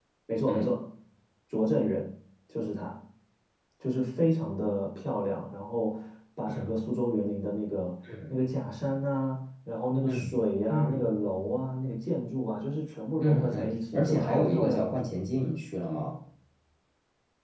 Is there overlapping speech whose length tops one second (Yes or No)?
Yes